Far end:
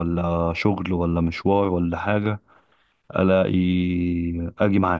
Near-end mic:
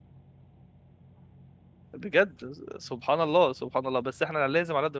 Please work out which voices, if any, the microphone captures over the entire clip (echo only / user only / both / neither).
user only